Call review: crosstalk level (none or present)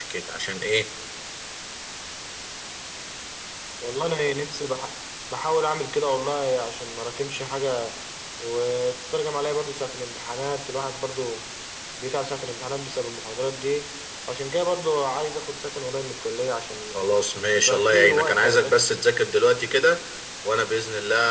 present